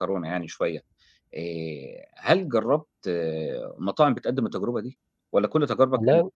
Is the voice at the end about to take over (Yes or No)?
No